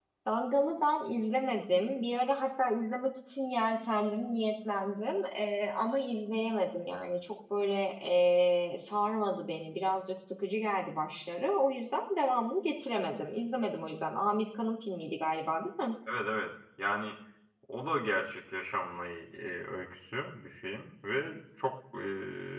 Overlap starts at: none

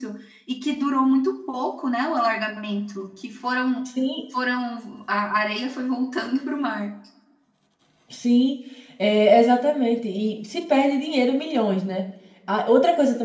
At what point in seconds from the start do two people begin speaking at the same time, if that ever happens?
none

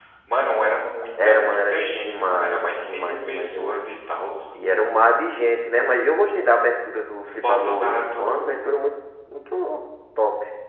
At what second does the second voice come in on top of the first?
1 s

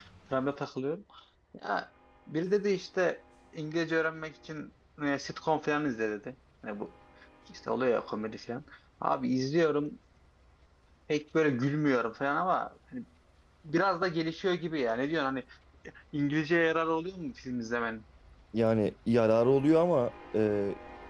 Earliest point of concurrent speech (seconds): none

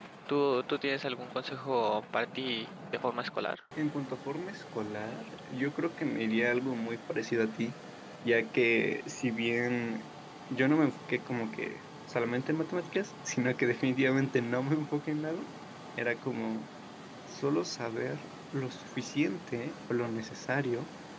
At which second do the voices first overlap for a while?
none

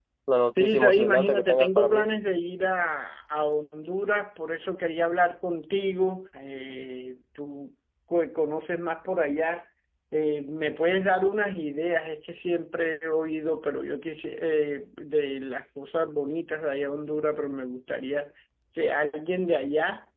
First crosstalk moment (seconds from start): 1 s

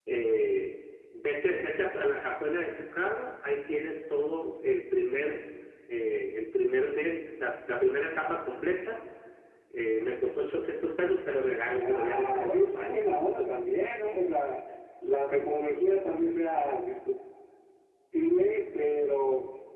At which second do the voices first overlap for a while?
12 s

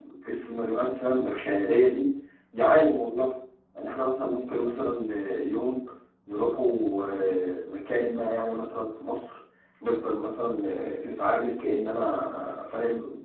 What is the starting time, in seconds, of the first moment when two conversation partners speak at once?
none

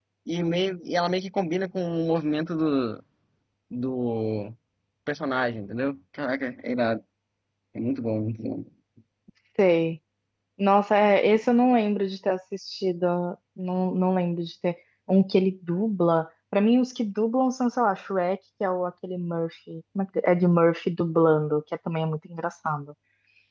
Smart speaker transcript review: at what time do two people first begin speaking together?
none

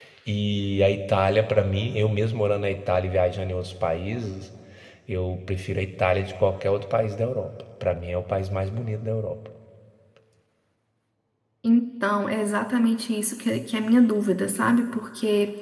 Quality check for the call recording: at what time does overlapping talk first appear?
none

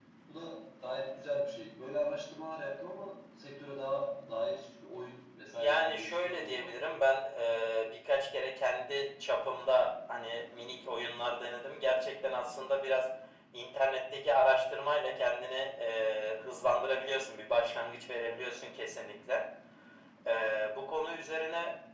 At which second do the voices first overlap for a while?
6 s

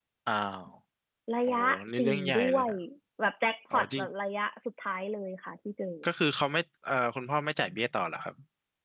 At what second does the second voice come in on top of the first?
1 s

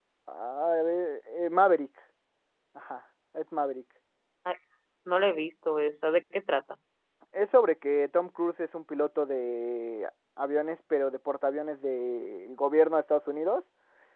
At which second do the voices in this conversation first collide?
none

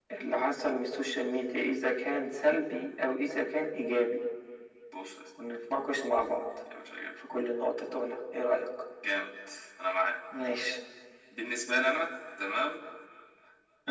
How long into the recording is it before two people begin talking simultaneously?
none

